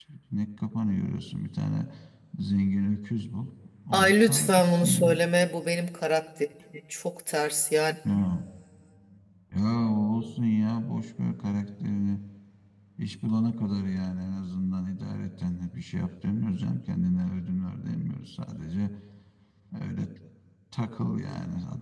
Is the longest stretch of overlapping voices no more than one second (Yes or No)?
No